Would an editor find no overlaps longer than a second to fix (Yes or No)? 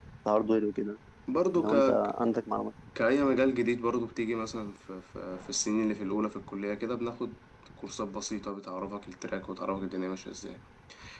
Yes